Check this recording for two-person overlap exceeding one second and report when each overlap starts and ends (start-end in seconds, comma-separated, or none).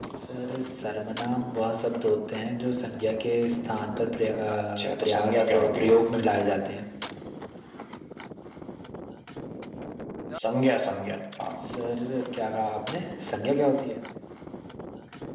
4.8-6.0